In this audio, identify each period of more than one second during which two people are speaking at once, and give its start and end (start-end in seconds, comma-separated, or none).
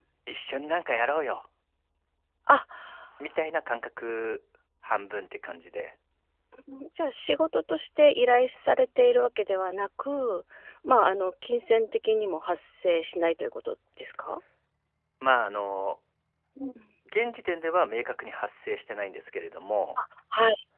none